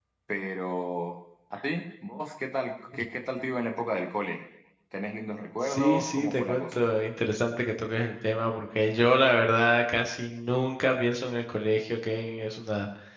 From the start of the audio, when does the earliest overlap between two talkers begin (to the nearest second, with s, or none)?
6 s